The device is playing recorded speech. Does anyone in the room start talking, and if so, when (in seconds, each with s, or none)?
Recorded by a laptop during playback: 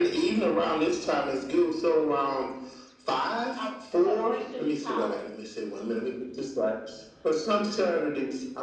3.6 s